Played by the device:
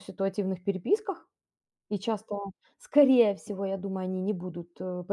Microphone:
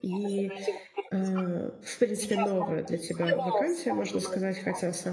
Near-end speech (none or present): present